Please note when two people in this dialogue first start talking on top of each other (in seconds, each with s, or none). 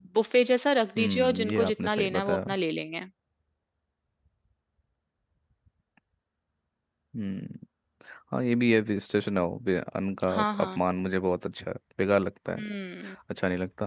1.0 s